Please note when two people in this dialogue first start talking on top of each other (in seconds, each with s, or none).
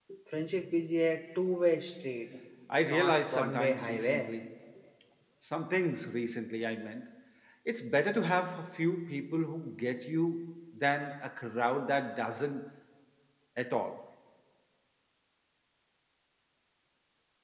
2.8 s